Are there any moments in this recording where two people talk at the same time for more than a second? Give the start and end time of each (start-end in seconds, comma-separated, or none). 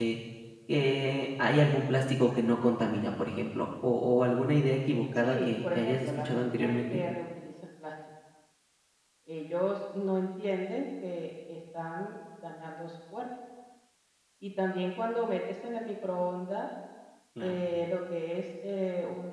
5.2-7.0